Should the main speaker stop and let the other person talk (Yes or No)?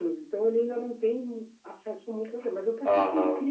No